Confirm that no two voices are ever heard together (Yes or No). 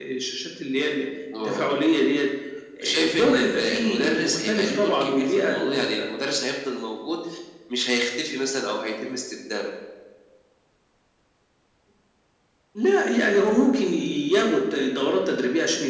No